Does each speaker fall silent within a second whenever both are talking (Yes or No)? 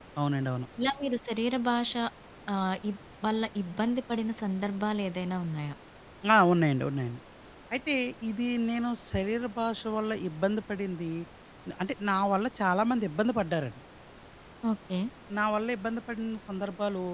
Yes